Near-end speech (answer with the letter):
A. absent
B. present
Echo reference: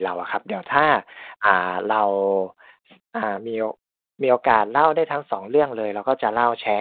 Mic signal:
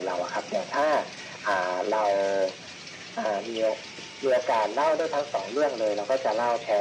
A